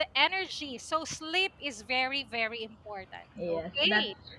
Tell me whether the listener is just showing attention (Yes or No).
No